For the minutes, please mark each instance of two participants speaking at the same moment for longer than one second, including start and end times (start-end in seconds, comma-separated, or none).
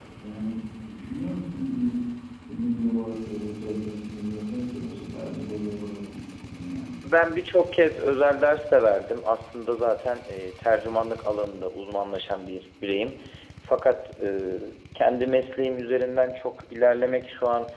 none